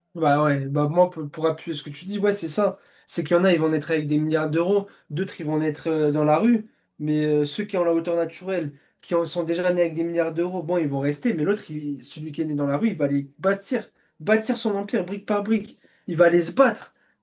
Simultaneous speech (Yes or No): No